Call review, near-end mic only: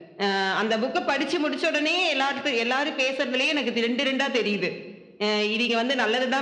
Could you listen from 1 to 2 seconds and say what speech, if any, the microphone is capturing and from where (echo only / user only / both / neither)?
echo only